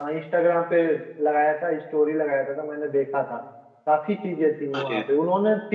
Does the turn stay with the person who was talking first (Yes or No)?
Yes